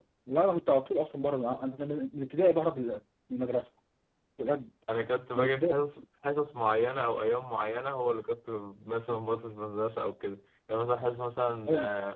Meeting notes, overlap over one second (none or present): none